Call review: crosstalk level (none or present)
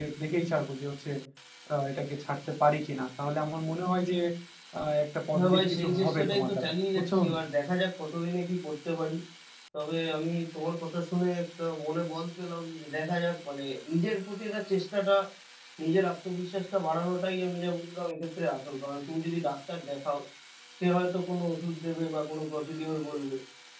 present